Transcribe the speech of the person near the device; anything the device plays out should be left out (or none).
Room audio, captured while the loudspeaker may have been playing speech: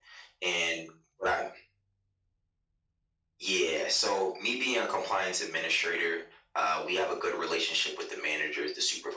none